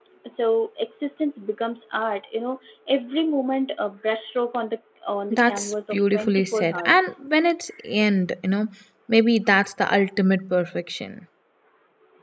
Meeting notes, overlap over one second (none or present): present